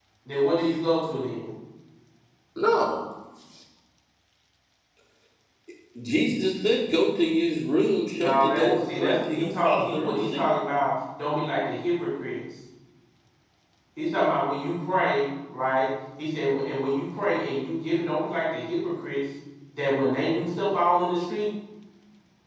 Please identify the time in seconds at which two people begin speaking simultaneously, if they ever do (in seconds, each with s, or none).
8.1 s